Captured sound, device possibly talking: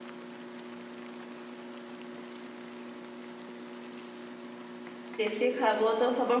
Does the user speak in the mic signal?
Yes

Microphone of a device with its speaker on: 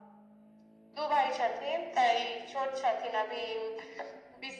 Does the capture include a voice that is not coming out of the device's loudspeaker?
No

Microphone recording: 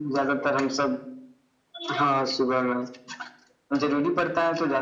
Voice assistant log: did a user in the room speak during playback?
No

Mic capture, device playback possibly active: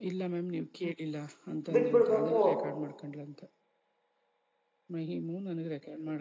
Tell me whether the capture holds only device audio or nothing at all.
No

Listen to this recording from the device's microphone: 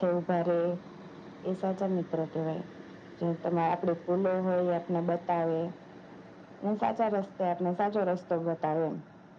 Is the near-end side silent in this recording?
Yes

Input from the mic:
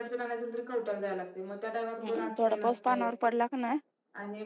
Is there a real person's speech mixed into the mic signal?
Yes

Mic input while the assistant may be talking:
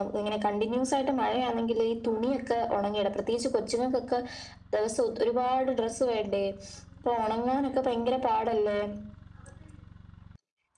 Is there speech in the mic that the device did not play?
No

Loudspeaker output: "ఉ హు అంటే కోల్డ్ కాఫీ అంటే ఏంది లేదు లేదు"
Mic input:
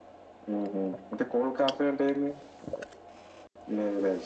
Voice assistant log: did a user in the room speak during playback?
No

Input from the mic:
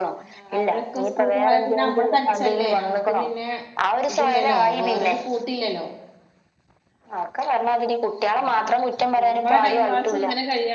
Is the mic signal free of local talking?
No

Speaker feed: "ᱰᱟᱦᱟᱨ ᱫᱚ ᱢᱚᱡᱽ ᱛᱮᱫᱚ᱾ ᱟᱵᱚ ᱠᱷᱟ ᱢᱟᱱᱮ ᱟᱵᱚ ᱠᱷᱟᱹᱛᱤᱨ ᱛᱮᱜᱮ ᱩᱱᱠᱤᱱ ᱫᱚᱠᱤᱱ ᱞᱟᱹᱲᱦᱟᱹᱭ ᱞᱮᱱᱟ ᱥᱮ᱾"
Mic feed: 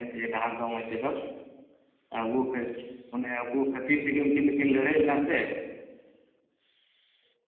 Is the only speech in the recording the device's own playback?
Yes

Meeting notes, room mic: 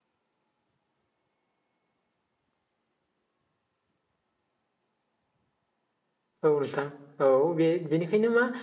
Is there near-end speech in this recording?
Yes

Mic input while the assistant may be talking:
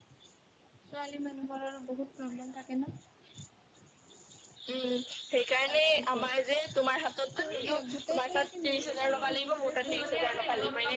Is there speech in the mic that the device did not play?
Yes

